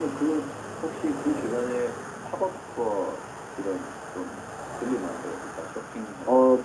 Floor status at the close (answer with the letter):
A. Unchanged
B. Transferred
B